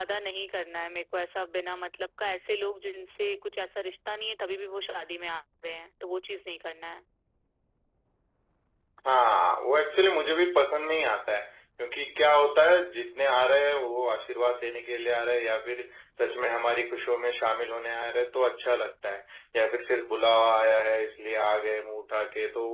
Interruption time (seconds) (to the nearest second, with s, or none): none